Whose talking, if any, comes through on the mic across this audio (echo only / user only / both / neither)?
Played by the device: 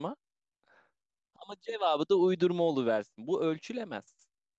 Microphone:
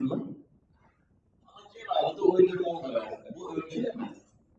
echo only